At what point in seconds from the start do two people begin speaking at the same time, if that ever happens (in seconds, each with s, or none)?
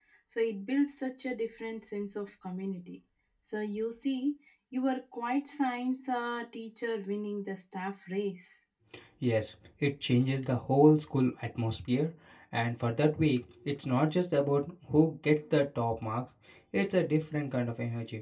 none